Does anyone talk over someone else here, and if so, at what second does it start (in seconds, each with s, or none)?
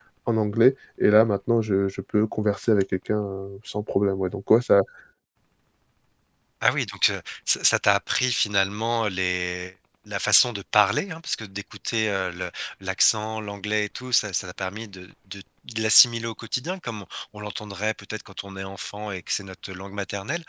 none